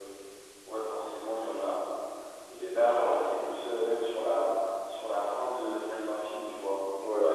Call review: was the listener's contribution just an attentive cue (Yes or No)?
Yes